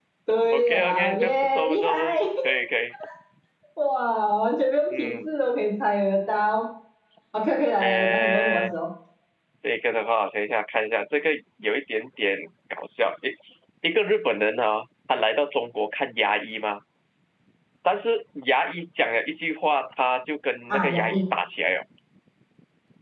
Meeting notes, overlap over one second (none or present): present